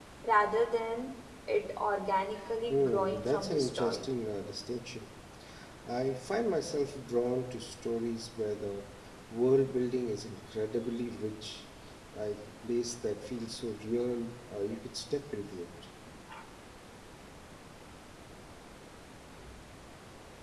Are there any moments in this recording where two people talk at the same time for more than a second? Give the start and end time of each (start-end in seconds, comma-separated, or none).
2.7-4.0